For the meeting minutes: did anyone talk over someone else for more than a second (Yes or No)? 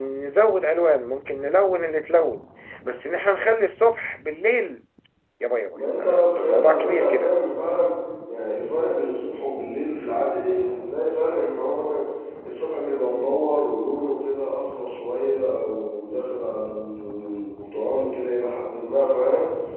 Yes